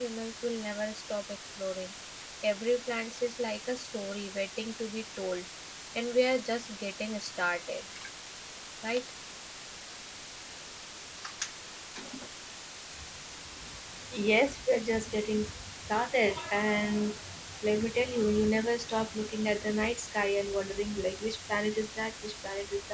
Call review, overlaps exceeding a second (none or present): none